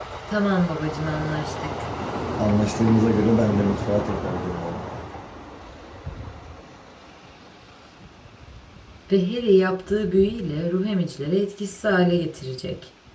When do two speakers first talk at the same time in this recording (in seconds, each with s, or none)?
none